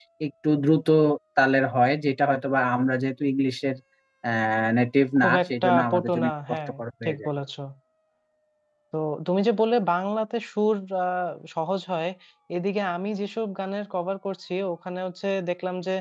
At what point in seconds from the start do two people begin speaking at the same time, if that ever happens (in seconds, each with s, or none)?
5.2 s